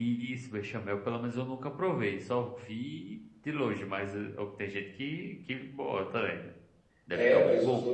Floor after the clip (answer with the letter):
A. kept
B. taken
B